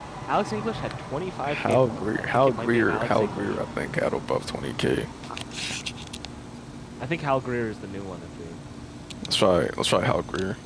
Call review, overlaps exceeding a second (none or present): present